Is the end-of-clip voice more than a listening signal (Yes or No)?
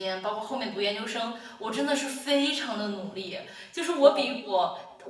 No